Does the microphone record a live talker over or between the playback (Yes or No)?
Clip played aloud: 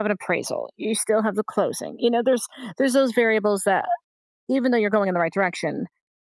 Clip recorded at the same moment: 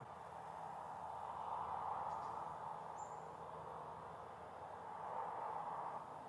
No